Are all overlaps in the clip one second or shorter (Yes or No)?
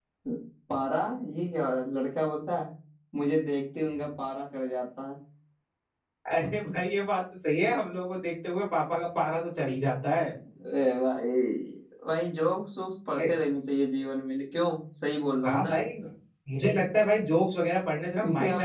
Yes